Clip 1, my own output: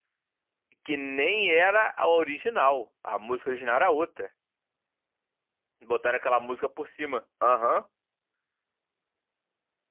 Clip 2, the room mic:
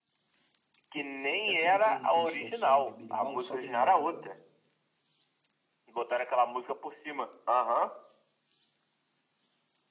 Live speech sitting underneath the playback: Yes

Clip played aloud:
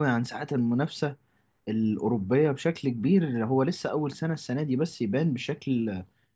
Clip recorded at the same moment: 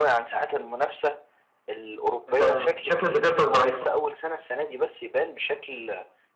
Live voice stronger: Yes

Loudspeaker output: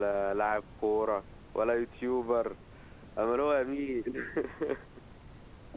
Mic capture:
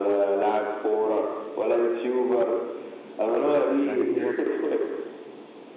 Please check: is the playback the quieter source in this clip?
No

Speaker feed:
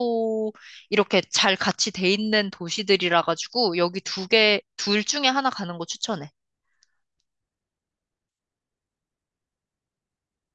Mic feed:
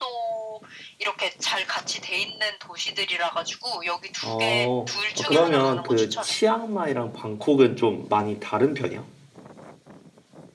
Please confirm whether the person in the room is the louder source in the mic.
Yes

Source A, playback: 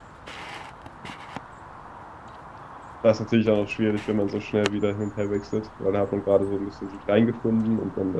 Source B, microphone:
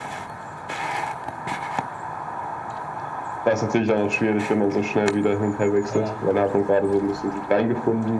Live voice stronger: No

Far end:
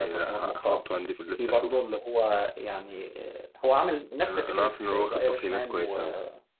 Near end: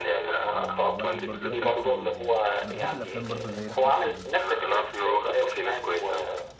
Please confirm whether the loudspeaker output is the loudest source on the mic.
Yes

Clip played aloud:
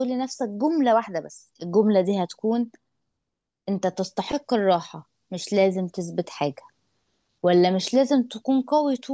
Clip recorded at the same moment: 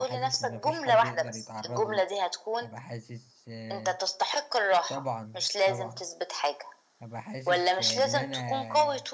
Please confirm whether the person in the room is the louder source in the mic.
No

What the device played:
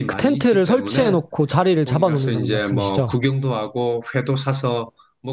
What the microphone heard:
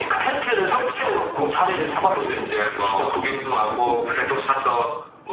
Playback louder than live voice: Yes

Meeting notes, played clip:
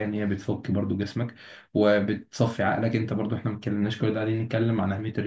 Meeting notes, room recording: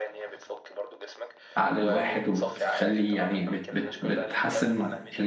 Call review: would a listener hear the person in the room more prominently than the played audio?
Yes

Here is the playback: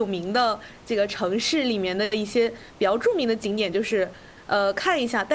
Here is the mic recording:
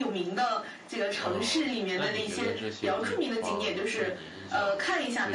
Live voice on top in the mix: No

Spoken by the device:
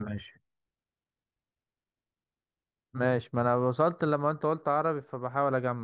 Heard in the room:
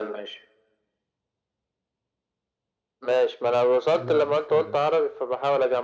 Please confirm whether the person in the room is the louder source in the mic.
No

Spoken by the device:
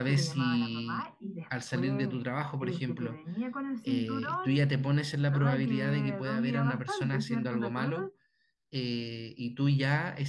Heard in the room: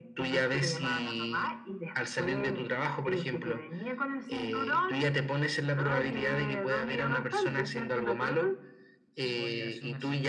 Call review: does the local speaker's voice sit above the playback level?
No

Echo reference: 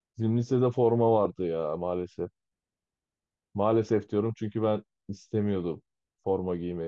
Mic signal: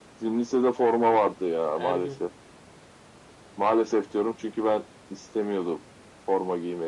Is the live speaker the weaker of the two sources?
Yes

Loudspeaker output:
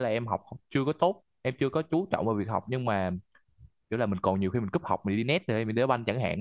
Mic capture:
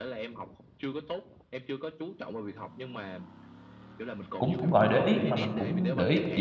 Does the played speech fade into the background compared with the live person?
Yes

